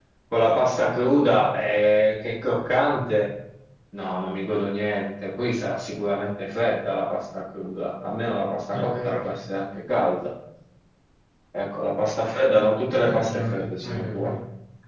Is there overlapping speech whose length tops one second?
Yes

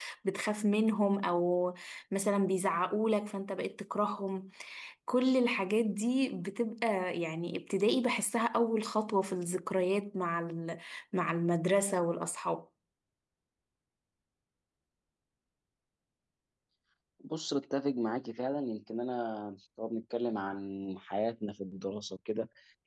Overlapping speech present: No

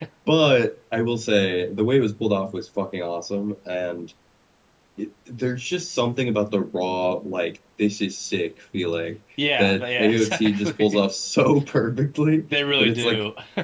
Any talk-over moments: Yes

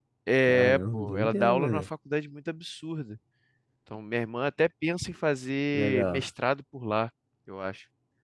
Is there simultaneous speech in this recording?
Yes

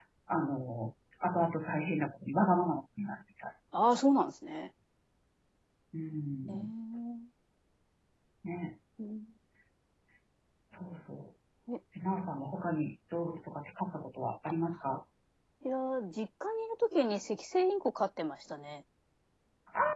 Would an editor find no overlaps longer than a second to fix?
Yes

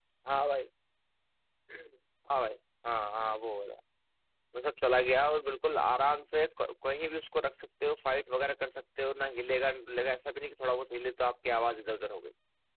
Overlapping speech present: No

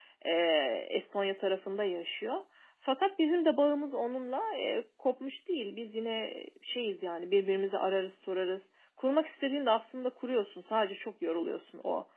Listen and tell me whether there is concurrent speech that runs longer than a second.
No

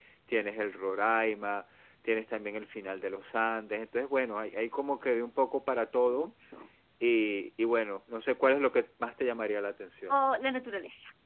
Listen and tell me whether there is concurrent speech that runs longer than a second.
No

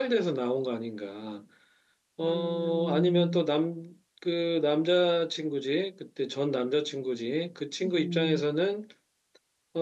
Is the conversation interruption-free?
No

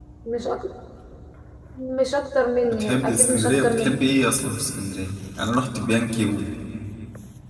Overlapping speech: Yes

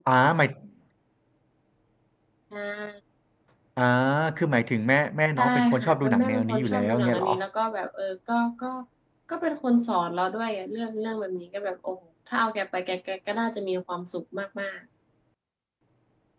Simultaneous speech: Yes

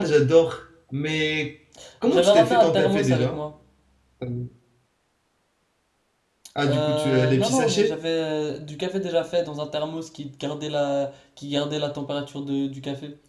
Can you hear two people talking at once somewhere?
Yes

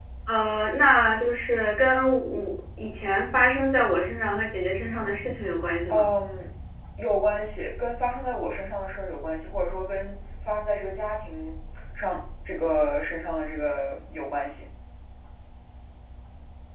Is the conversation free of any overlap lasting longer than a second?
Yes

